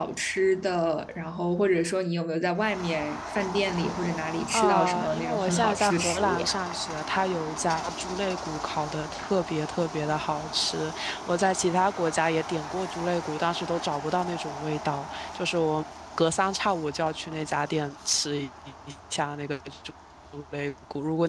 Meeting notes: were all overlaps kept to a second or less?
No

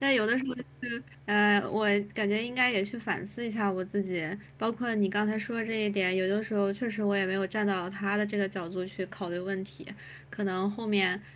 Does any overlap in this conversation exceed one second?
No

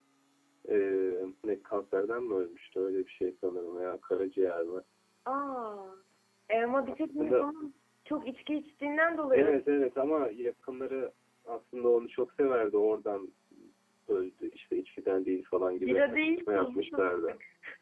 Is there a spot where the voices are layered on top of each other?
Yes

